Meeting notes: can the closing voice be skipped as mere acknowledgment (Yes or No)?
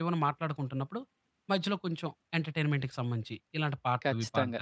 No